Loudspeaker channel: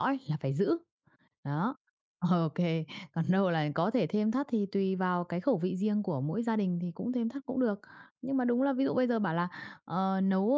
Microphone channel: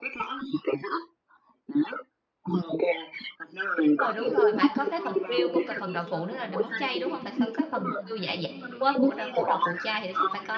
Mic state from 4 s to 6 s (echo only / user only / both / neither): both